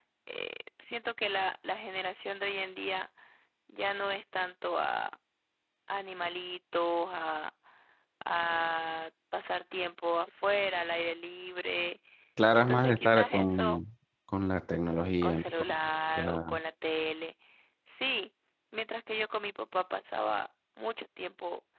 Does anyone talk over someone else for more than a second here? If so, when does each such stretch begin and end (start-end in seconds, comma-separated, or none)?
12.5-13.8